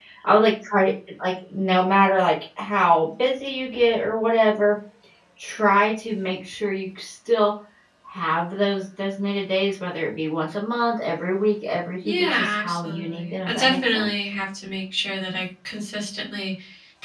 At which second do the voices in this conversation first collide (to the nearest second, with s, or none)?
12 s